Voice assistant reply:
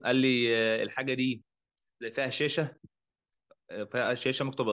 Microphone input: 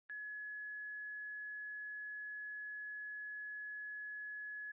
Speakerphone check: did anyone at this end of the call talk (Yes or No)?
No